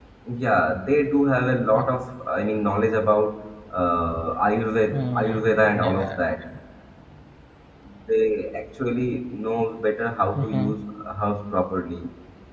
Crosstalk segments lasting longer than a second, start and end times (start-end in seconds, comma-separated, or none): 4.9-6.2